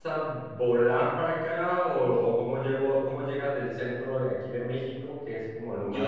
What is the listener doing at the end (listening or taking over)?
taking over